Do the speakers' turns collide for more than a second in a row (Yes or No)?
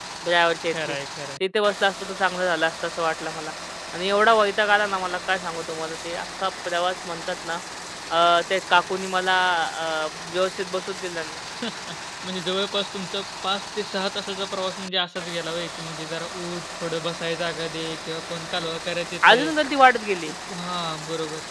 No